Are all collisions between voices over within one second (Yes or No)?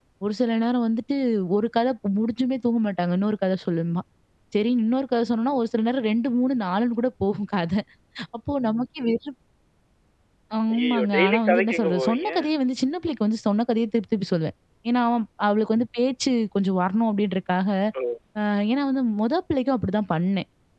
No